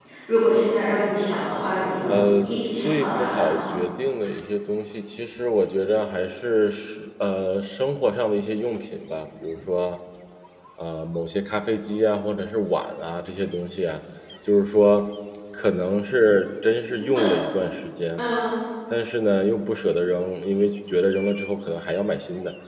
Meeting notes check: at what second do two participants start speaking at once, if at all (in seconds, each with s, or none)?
2.1 s